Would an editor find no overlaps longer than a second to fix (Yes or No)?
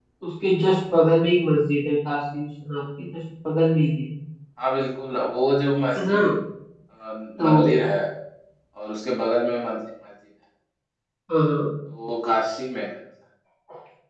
Yes